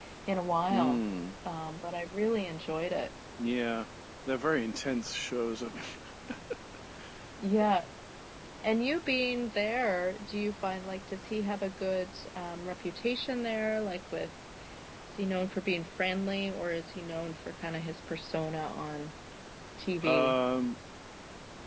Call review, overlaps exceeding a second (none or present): none